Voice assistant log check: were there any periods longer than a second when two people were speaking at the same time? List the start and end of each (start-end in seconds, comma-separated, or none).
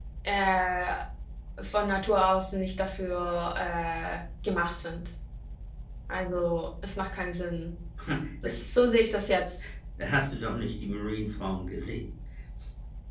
none